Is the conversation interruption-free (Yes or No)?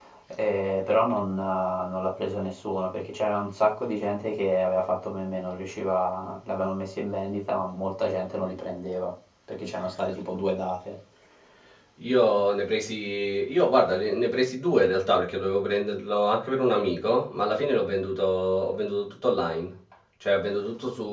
Yes